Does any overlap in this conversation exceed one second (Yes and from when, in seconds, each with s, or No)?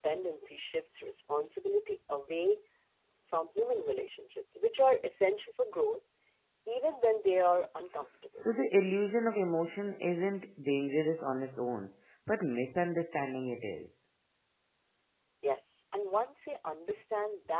No